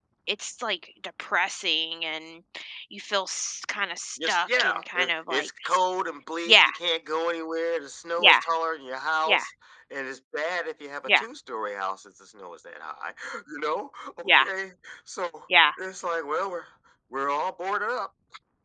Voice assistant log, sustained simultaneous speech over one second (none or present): present